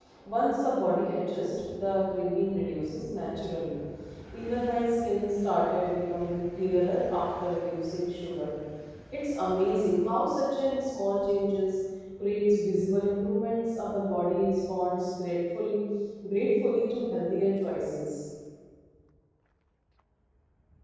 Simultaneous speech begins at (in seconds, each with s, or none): none